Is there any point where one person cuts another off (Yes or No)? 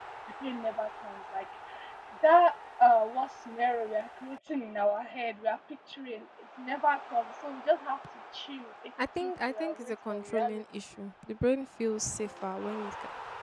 Yes